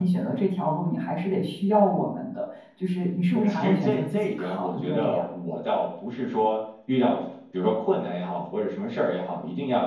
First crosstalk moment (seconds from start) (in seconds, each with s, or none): 3.3 s